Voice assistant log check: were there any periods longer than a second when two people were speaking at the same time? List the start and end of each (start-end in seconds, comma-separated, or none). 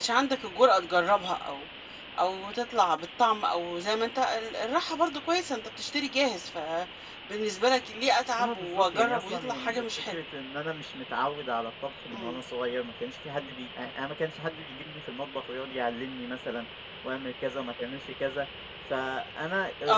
8.4-10.2